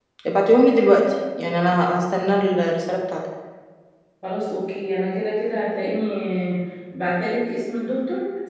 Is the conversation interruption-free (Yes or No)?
Yes